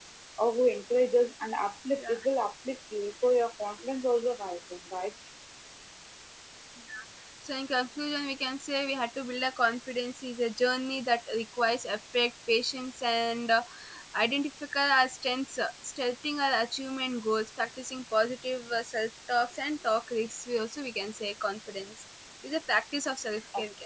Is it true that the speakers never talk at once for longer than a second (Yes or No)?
Yes